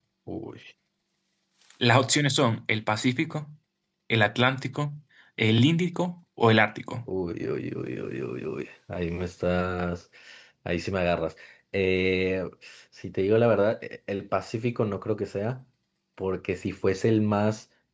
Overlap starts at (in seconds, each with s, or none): none